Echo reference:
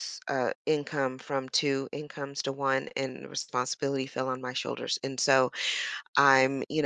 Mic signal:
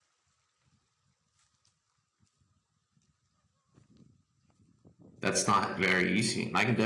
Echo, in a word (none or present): none